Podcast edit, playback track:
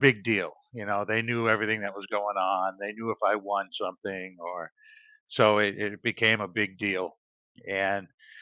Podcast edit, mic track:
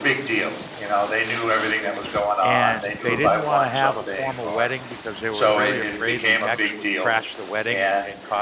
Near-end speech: present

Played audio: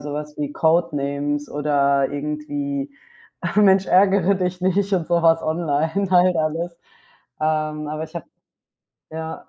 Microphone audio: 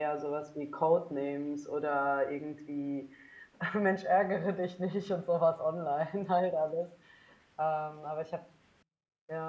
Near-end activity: none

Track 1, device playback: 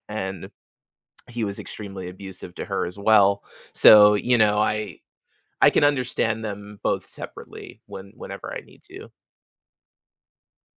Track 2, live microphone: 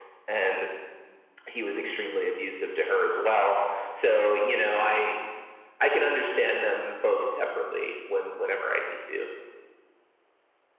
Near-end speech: none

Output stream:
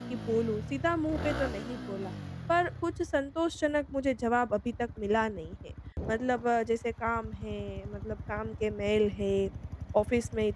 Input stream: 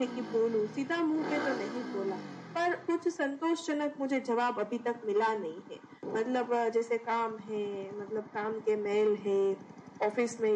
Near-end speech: none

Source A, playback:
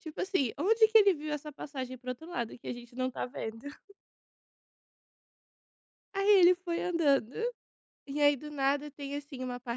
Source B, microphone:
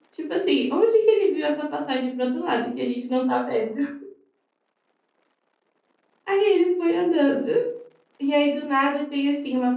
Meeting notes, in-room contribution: none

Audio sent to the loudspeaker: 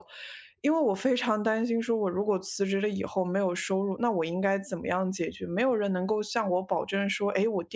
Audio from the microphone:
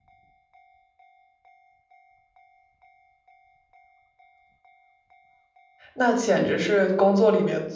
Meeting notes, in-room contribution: present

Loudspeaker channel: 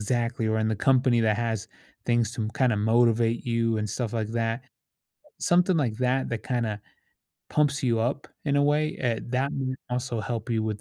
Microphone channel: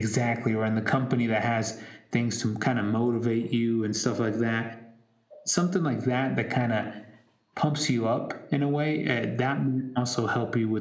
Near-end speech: none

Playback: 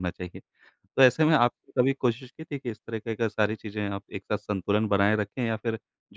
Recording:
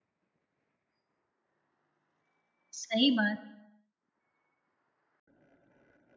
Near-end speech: present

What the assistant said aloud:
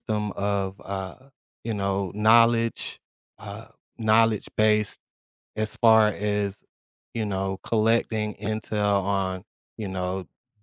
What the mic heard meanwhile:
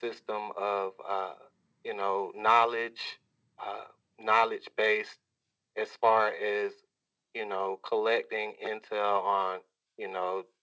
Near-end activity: none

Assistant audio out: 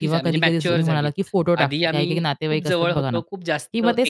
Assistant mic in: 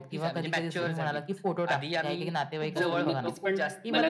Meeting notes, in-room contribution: present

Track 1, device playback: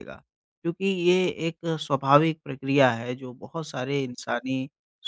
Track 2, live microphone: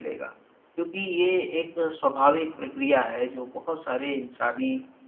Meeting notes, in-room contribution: none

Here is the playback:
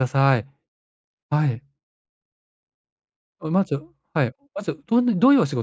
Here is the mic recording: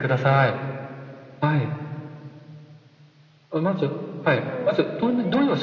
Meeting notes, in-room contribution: present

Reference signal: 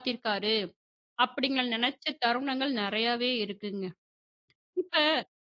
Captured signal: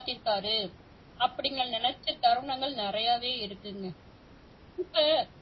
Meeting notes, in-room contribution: none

